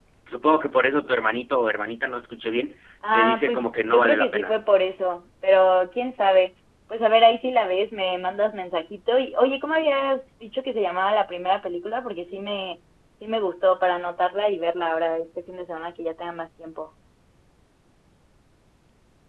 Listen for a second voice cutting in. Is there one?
Yes, from 3.0 s

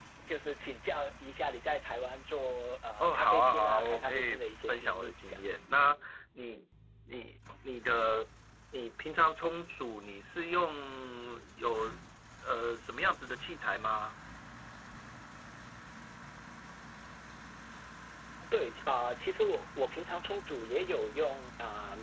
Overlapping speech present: Yes, from 3.0 s

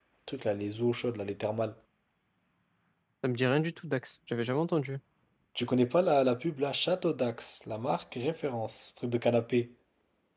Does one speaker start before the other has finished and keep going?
No

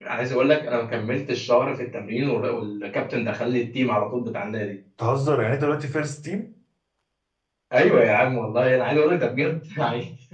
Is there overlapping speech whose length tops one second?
No

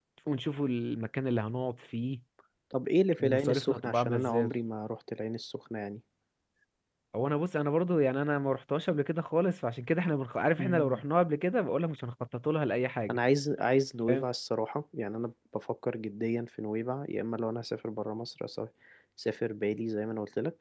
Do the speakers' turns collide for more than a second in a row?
Yes, from 3.2 s

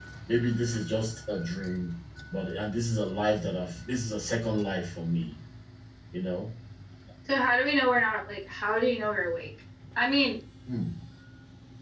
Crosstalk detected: No

